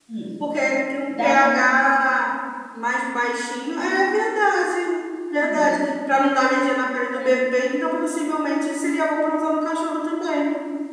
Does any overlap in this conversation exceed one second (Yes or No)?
No